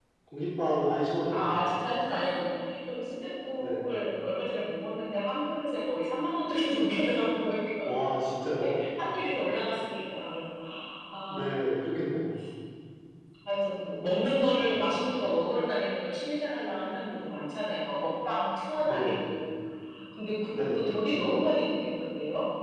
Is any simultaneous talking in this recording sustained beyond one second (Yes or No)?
No